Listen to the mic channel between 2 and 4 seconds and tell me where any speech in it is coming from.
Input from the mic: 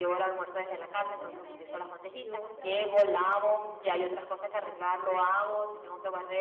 both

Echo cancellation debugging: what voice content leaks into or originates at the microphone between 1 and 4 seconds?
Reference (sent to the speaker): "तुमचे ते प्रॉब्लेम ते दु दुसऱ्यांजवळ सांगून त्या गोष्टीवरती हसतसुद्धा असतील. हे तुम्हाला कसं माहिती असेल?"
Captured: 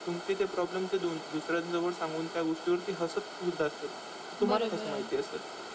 echo only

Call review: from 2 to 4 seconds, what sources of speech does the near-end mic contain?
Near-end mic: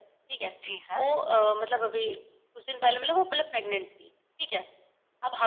echo only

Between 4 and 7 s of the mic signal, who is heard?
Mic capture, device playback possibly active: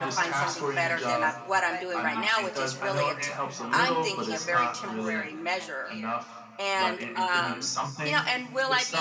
both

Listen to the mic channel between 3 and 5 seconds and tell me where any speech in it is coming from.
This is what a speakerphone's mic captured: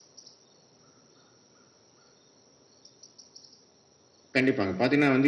user only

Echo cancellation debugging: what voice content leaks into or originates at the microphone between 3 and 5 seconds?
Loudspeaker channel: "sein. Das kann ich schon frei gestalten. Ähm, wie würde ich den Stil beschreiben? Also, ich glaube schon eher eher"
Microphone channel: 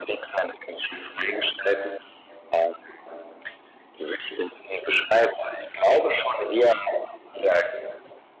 echo only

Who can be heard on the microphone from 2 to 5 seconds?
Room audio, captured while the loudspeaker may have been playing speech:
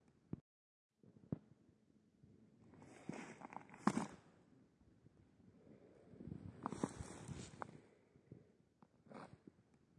neither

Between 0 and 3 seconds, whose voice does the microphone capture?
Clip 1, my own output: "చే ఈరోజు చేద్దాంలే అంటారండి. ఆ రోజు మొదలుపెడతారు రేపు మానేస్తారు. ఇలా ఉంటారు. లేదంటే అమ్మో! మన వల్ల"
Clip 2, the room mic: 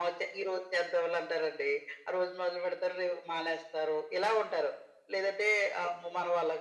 echo only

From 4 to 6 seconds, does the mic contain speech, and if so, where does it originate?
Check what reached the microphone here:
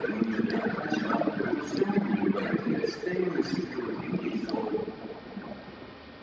echo only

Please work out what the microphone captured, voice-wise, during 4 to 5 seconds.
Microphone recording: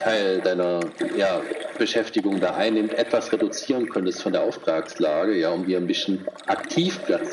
echo only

